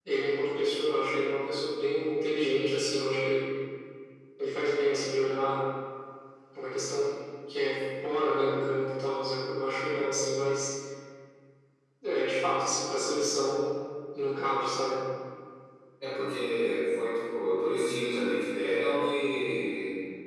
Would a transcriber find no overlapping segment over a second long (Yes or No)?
Yes